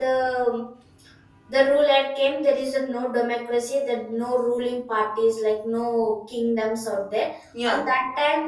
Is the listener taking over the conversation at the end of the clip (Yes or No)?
No